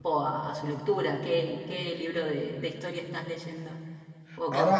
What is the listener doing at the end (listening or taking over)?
taking over